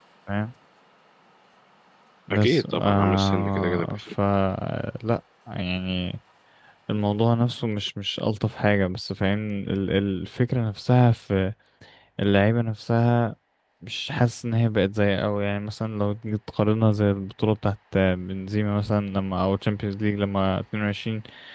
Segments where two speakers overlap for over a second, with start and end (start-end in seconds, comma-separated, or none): 2.3-4.0